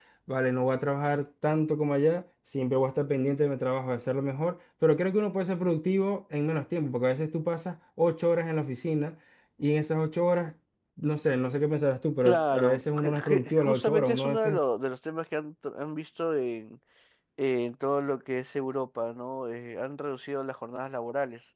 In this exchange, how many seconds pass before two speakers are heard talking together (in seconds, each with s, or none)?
12.2 s